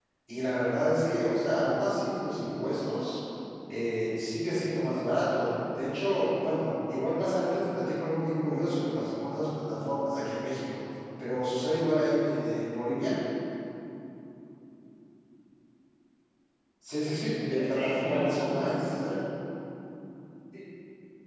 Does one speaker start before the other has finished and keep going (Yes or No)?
Yes